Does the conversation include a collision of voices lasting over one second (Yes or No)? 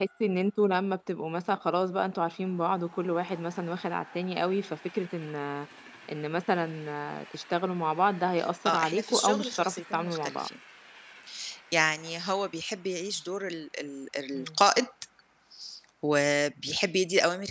Yes